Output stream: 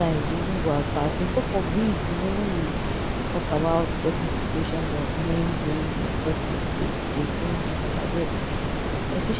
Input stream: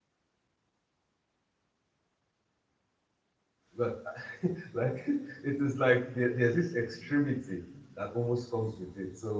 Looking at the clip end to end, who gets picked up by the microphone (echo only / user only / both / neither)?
user only